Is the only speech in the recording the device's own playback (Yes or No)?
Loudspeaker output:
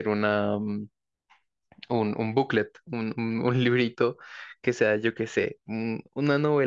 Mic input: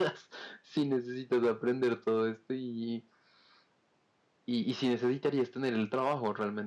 No